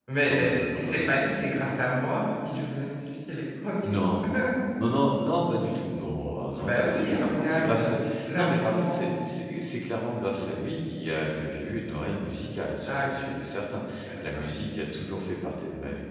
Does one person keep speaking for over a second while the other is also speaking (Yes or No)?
Yes